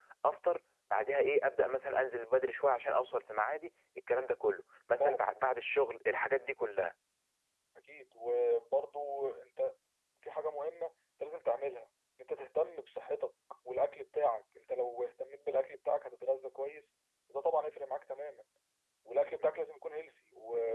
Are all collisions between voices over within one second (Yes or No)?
Yes